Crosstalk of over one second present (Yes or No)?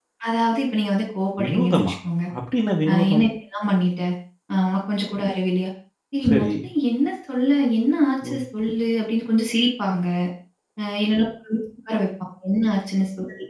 No